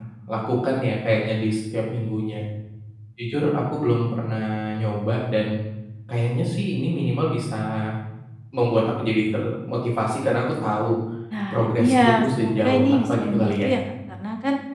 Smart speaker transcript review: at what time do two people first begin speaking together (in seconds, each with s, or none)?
11.5 s